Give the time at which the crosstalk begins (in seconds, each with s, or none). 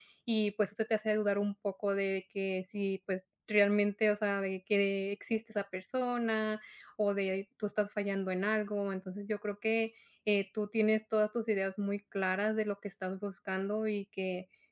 none